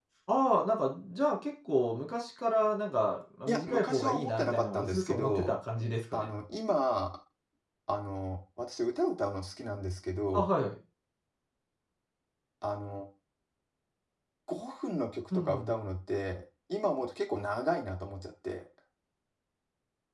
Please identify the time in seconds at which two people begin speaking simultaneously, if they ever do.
3.5 s

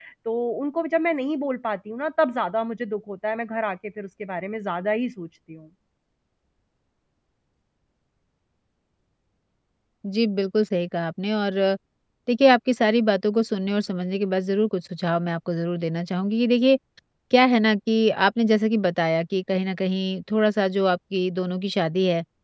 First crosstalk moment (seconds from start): none

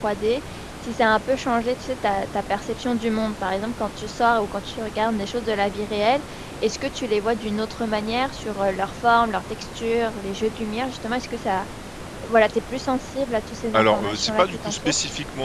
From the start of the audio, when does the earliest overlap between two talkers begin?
13.7 s

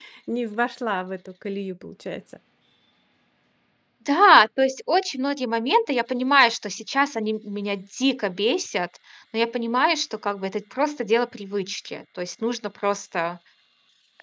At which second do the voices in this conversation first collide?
none

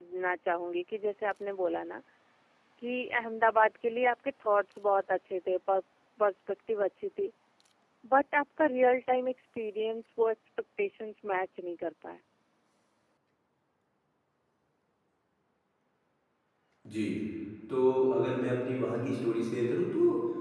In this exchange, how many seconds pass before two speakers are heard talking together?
none

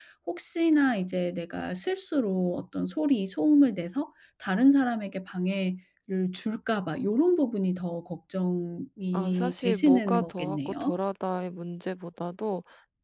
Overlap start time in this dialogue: 9.1 s

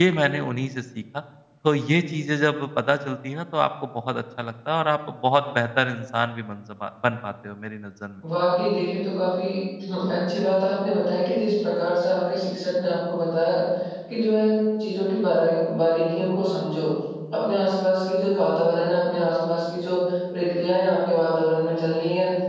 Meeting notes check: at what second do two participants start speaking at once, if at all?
none

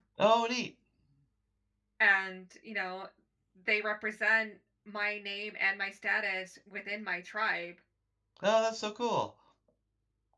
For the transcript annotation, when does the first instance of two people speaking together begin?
none

